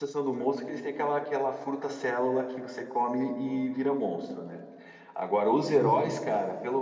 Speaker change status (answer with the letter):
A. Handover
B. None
B